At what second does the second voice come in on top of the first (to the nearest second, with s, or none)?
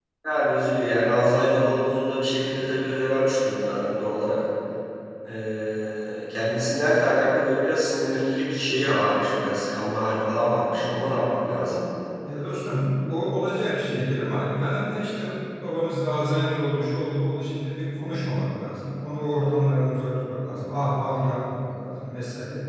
none